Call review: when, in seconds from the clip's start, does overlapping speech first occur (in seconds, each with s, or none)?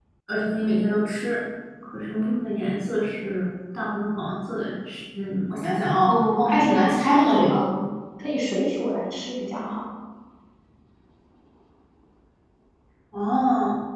6.0 s